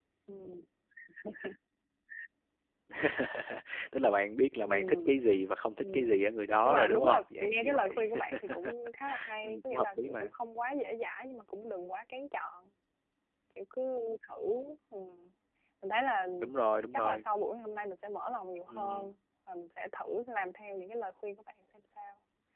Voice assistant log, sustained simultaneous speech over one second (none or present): present